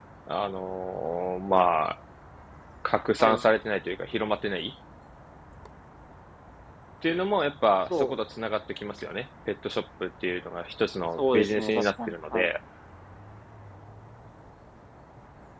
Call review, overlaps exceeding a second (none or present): present